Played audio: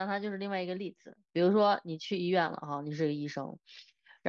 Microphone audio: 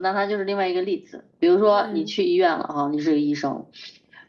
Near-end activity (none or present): present